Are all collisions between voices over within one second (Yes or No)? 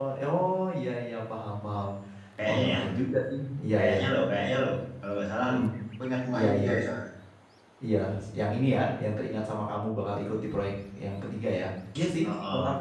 Yes